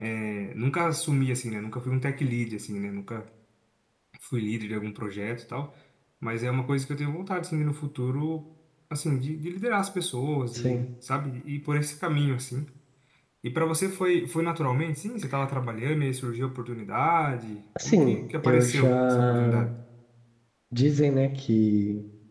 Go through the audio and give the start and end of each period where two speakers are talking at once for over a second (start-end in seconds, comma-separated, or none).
17.8-19.6